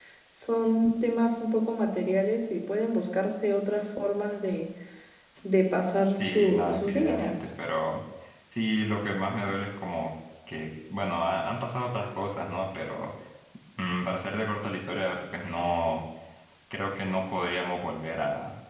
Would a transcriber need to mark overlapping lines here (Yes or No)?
Yes